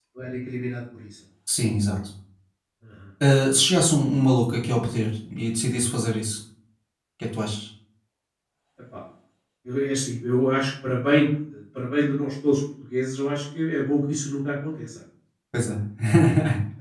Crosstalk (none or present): none